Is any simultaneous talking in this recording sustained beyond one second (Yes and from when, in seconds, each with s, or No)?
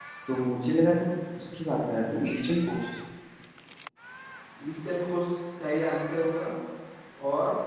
No